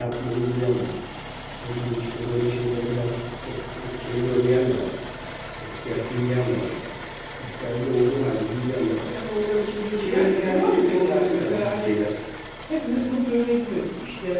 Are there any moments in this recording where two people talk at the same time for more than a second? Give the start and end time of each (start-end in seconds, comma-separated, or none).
10.1-12.0